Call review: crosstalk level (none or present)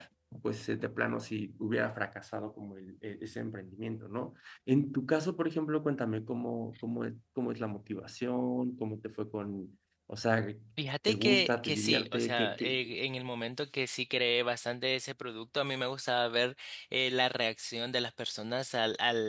present